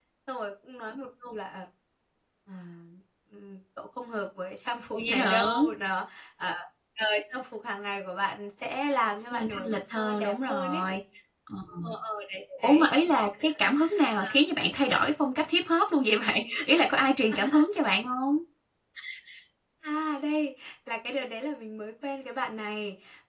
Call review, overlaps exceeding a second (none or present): present